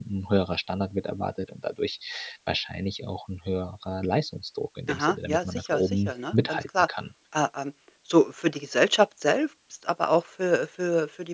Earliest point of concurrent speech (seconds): 4.9 s

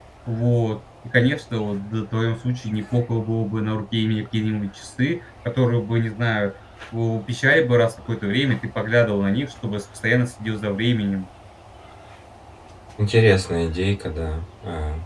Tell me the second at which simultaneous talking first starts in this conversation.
none

